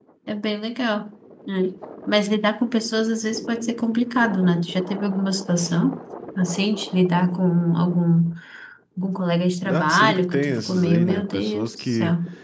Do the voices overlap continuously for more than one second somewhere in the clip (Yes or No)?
Yes